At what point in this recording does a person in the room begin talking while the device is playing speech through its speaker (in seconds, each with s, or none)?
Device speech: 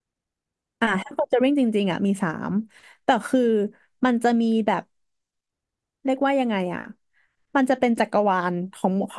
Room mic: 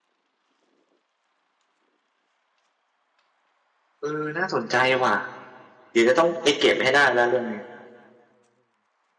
4.0 s